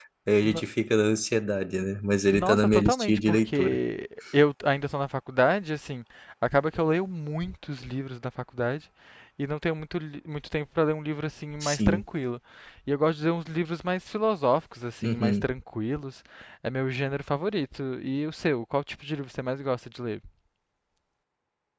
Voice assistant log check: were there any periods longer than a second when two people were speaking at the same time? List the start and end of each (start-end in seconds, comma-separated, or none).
2.3-3.8